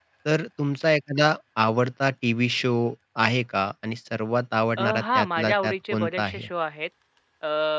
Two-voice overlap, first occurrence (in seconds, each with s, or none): 4.8 s